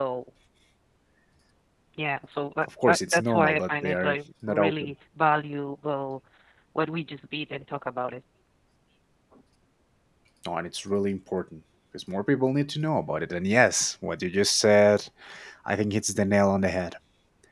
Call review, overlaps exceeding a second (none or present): present